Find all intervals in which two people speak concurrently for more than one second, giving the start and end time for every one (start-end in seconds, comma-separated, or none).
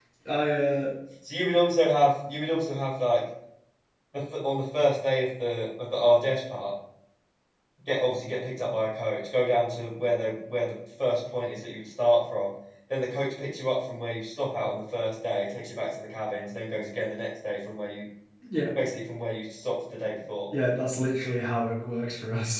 none